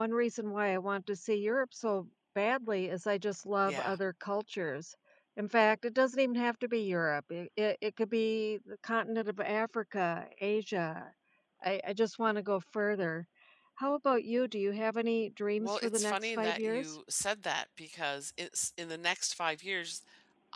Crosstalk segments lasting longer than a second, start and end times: 15.6-17.0

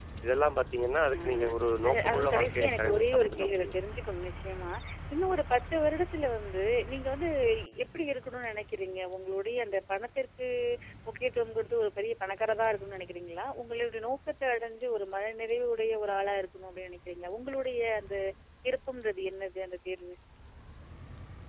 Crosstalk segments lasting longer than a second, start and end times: 1.9-3.8

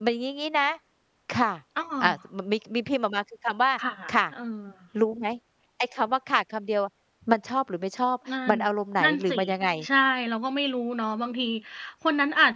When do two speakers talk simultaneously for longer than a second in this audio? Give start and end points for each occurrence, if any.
none

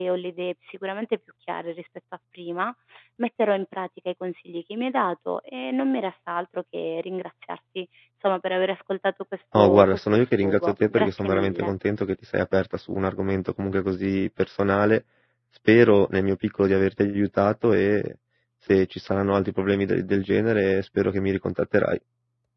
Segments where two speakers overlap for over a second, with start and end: 9.6-11.7

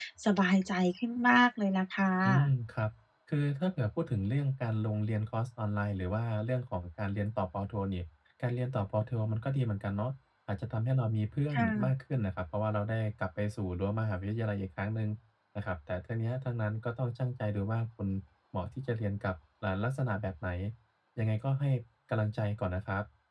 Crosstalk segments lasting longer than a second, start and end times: none

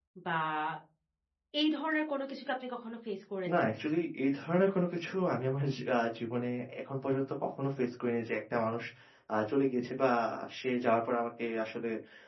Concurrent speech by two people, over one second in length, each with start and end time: none

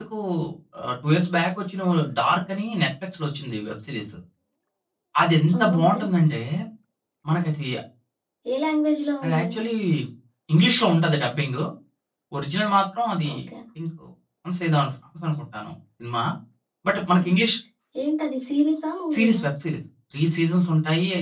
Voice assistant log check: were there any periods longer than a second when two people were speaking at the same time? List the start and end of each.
none

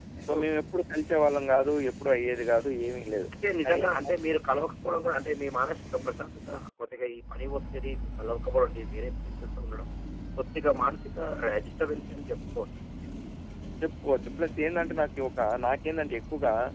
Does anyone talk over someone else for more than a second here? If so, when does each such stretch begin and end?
none

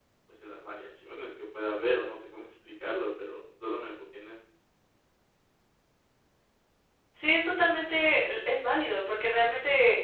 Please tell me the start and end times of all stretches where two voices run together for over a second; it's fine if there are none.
none

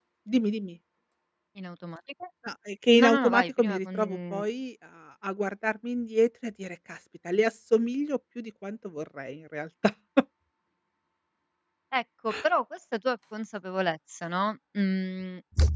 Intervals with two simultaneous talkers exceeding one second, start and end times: 3.0-4.4

